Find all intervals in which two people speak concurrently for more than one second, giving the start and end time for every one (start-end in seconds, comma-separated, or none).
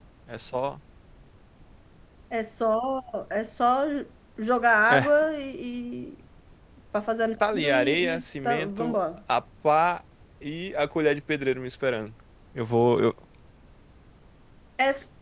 7.5-9.0